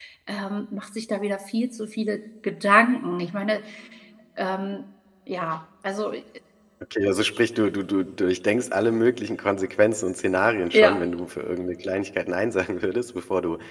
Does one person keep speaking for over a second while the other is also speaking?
No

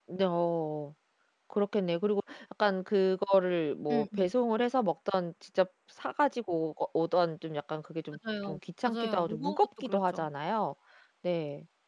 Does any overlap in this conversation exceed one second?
Yes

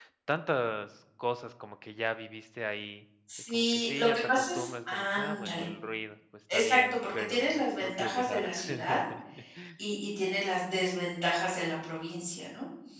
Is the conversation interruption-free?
No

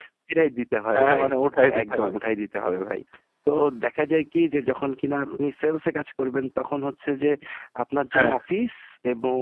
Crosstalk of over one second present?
No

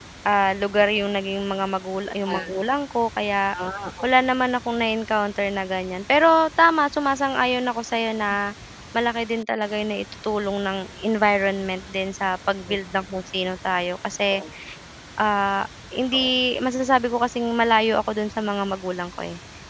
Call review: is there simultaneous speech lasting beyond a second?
No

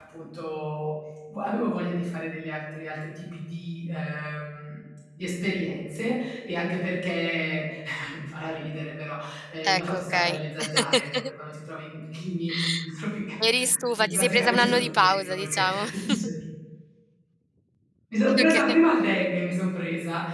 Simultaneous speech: Yes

